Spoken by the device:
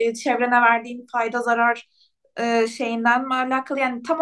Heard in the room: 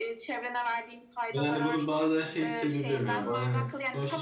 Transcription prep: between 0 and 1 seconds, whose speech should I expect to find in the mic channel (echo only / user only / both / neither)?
echo only